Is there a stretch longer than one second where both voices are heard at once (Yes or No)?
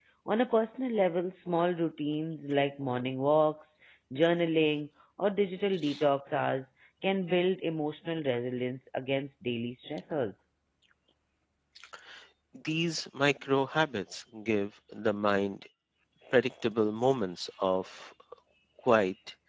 No